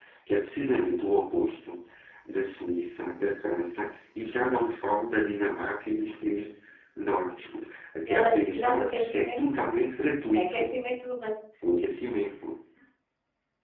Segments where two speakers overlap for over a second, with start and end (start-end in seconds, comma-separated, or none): 8.1-9.6